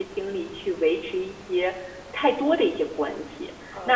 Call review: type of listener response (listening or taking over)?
taking over